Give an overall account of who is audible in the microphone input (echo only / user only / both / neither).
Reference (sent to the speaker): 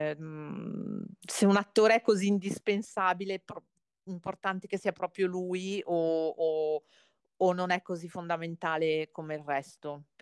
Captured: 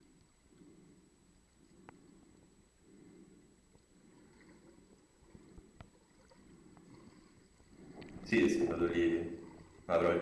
user only